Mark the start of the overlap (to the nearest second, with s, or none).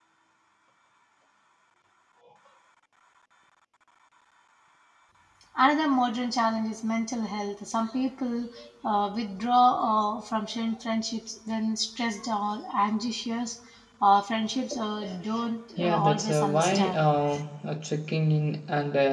16 s